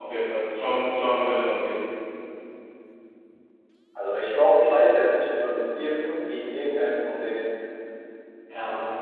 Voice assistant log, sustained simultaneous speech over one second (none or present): none